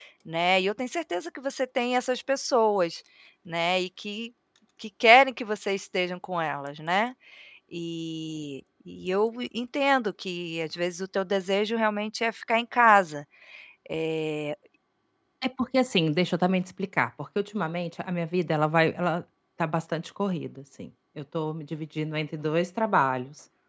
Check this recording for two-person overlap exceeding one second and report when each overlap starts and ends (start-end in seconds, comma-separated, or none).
none